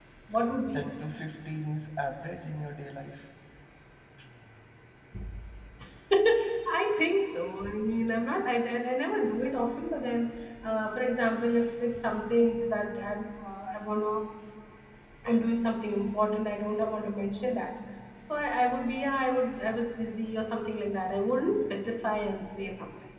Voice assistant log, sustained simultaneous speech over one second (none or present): none